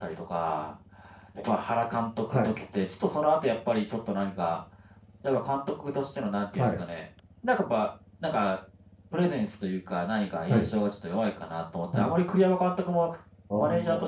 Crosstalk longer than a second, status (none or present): none